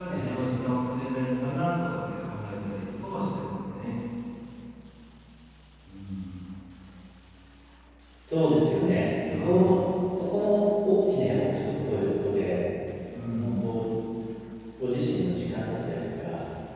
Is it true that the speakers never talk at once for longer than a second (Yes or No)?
Yes